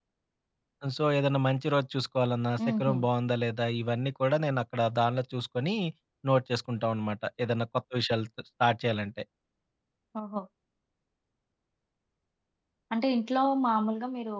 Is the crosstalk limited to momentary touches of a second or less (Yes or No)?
Yes